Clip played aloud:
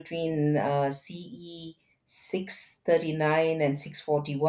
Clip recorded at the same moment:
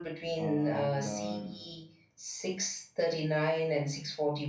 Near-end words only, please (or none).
uh, and uh,